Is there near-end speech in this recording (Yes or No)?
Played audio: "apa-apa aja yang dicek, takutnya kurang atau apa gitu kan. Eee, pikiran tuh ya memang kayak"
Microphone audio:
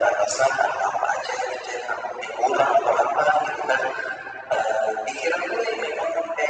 No